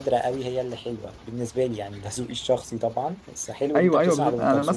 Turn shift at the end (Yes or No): Yes